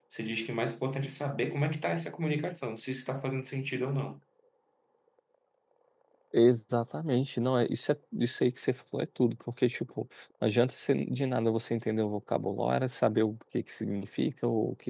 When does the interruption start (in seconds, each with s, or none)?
none